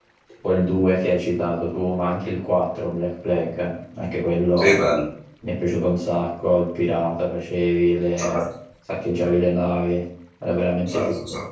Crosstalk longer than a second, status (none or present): none